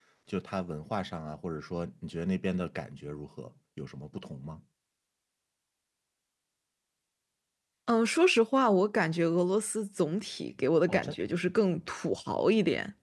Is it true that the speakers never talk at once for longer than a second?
Yes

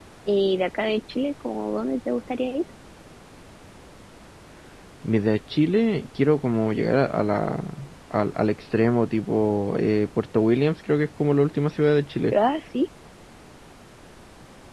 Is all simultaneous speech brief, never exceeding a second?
Yes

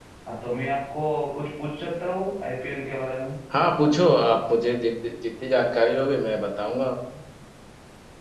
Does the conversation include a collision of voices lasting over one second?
No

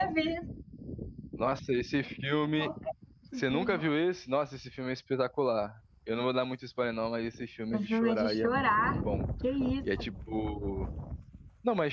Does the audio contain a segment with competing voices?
Yes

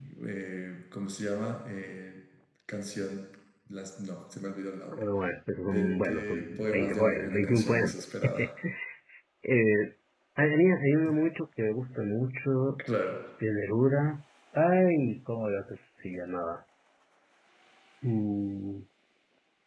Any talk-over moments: Yes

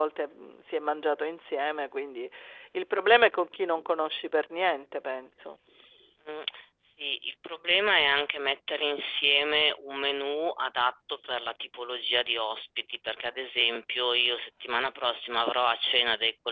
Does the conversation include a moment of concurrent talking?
No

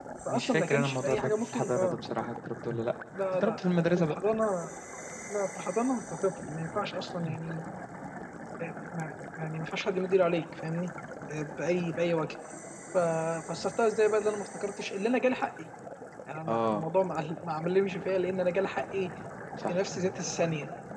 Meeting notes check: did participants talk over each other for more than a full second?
Yes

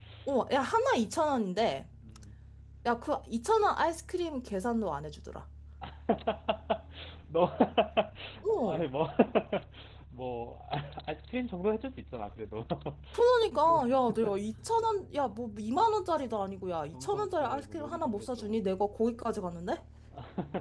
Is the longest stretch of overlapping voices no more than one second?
No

